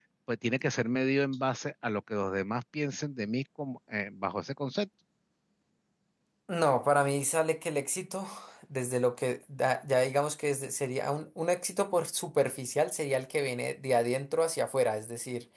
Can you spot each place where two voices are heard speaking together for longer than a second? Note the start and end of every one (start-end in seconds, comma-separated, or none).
none